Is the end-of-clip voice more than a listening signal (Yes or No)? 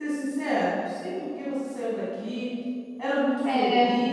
No